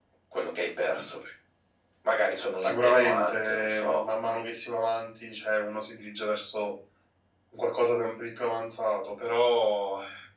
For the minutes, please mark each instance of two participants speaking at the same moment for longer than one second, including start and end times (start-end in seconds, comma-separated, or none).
2.5-4.0